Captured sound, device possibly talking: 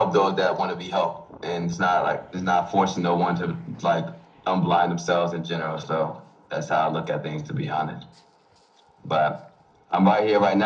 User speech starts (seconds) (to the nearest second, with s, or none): none